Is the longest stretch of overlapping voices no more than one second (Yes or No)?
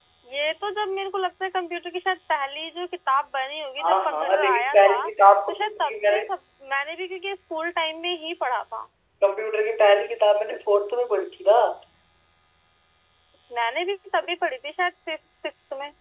No